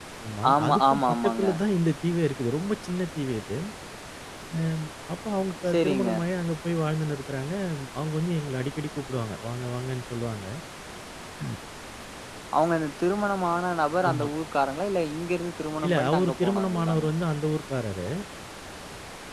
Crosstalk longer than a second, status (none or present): present